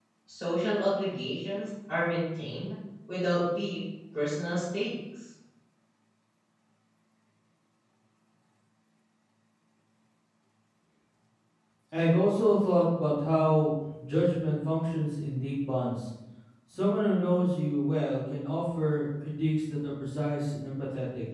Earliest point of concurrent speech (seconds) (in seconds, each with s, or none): none